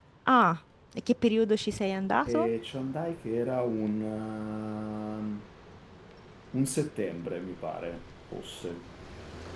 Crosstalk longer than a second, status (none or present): none